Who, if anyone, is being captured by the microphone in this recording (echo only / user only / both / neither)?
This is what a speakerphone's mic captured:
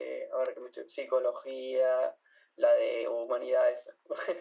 echo only